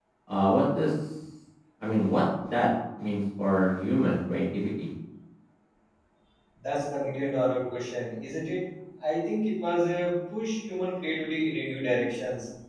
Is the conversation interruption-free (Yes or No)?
Yes